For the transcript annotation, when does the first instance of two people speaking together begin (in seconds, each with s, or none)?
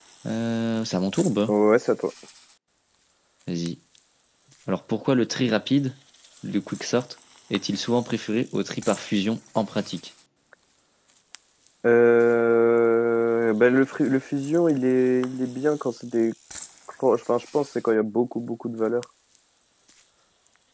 none